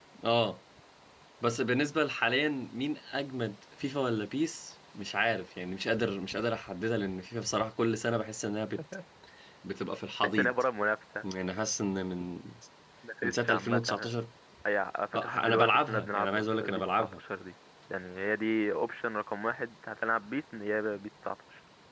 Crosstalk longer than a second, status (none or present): present